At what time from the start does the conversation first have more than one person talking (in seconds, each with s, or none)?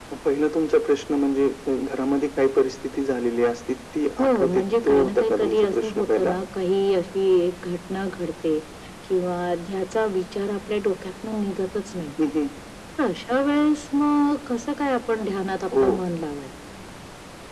4.2 s